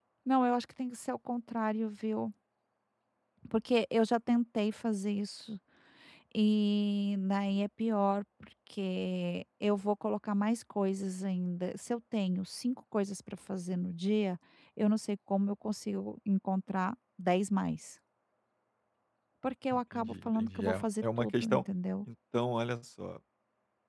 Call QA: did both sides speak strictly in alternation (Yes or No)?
No